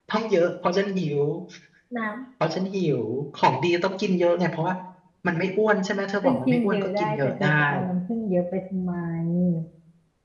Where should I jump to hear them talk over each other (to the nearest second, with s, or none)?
6 s